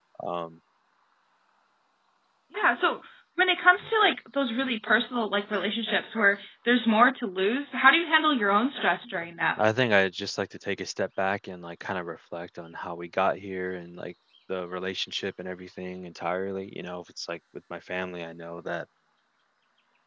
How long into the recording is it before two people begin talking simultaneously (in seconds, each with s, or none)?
none